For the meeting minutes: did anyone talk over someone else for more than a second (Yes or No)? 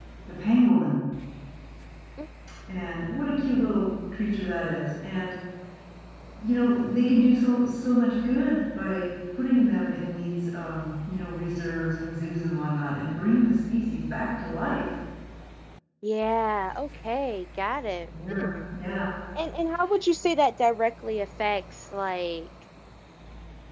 No